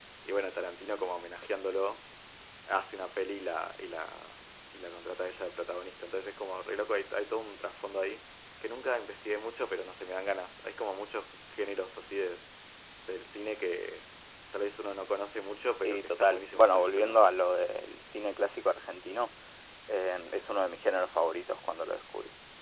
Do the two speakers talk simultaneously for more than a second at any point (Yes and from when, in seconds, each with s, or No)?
Yes, from 15.8 s